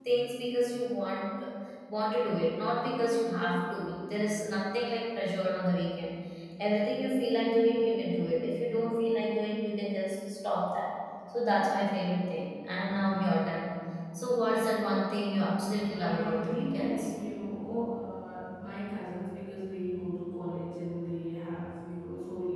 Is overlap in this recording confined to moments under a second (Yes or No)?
No